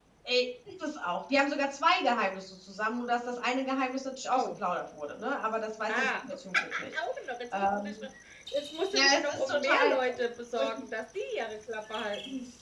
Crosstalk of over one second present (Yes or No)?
Yes